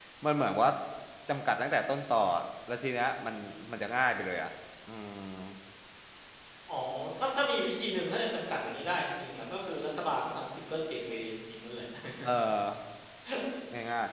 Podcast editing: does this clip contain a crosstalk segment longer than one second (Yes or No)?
No